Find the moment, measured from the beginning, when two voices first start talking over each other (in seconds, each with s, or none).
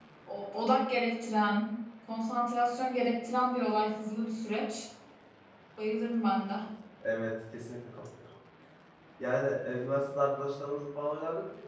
none